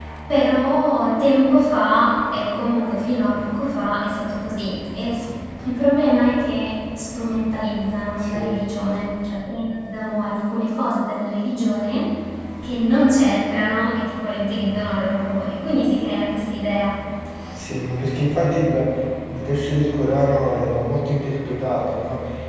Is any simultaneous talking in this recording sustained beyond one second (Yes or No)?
No